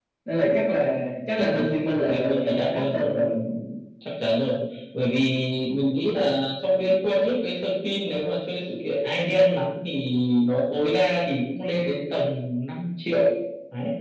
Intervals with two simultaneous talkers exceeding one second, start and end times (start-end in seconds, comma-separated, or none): 2.1-3.4